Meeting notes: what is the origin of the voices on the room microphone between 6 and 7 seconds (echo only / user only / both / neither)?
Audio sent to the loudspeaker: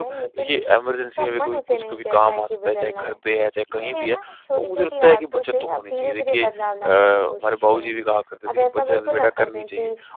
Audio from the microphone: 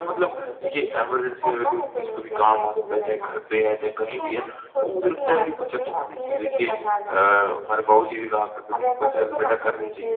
echo only